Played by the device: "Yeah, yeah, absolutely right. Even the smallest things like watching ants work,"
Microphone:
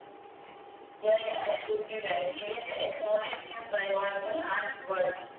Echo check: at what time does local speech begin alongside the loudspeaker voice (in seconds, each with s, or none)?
none